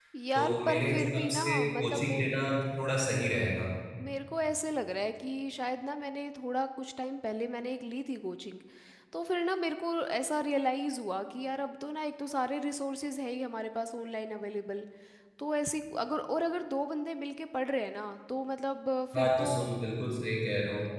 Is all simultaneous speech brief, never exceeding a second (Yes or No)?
No